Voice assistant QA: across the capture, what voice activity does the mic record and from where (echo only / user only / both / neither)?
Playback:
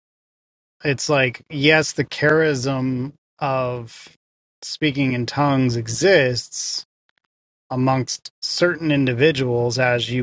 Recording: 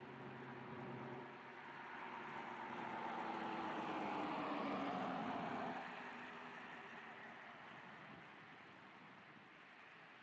neither